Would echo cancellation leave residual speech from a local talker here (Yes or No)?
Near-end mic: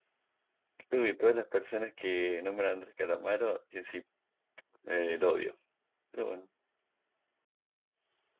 Yes